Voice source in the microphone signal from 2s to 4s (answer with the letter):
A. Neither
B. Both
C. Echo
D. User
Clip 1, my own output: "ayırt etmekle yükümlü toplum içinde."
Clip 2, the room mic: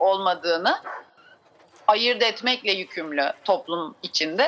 C